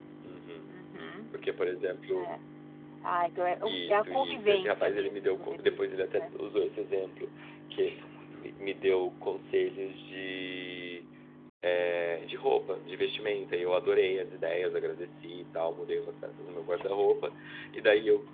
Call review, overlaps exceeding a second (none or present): present